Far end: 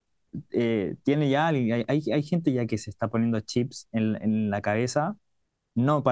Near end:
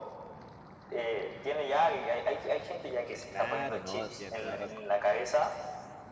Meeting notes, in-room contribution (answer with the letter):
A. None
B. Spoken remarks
B